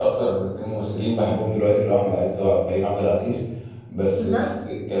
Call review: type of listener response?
listening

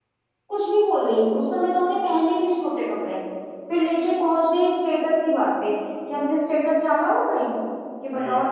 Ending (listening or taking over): listening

